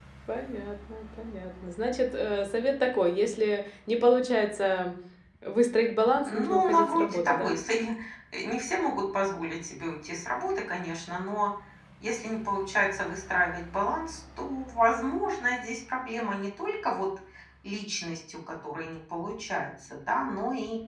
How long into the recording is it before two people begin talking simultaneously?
6 s

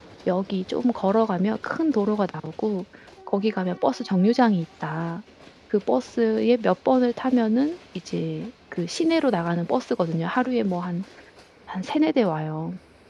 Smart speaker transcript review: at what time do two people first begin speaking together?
none

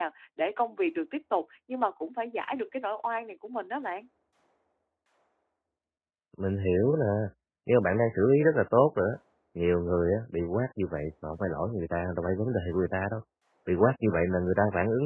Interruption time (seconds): none

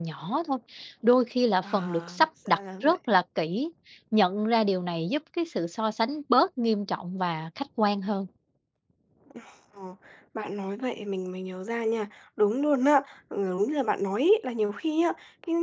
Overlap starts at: 2 s

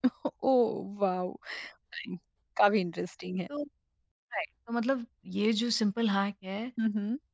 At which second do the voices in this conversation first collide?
none

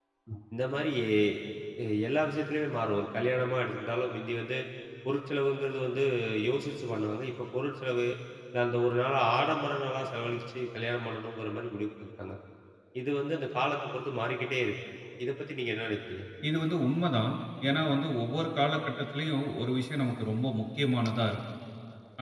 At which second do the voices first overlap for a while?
none

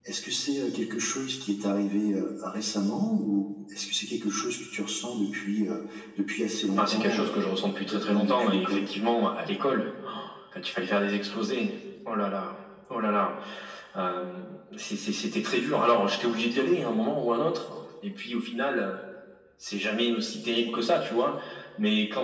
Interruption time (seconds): 7 s

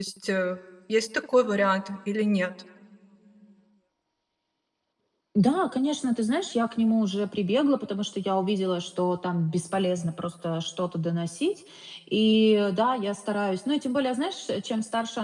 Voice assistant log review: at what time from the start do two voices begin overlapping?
none

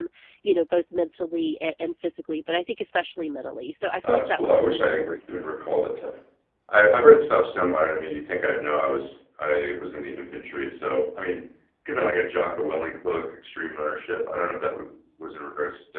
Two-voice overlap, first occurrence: 4 s

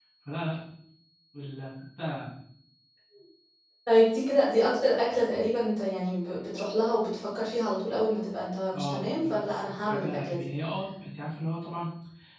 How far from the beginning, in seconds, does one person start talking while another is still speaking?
9 s

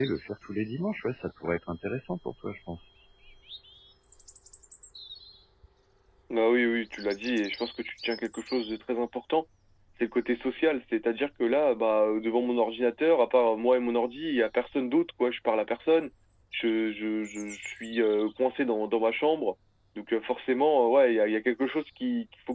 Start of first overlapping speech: none

